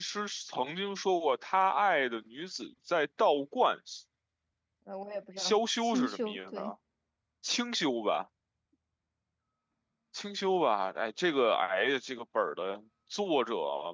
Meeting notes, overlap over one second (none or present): present